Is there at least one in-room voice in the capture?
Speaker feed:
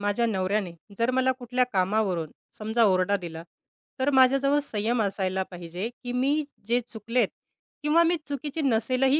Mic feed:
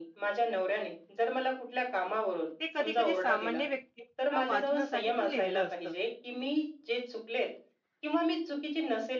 Yes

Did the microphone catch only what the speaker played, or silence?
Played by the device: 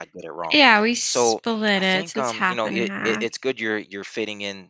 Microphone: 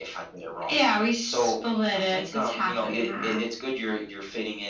Yes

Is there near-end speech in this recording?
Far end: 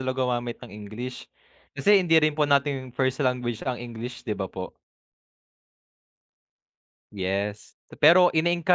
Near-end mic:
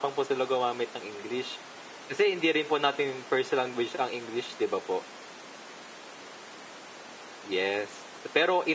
No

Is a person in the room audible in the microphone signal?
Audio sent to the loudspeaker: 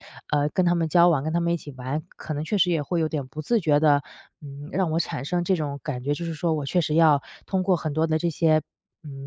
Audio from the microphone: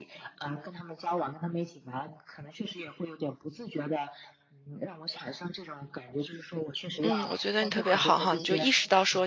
Yes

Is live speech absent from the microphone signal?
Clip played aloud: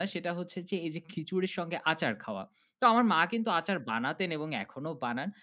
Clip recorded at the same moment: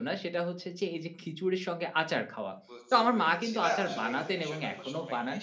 No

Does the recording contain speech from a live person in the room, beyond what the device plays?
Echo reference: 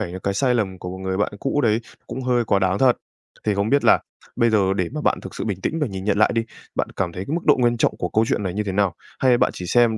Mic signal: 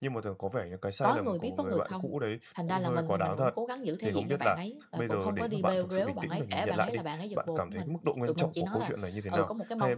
Yes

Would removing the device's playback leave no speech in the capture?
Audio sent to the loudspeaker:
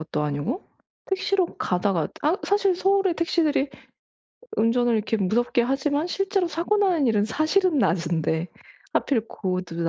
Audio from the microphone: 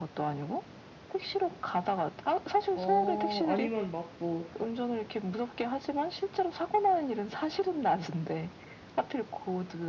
No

